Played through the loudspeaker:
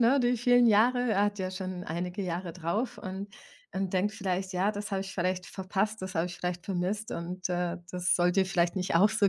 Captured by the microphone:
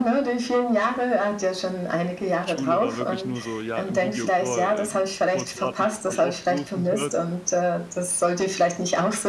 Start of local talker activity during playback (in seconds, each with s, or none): 2.5 s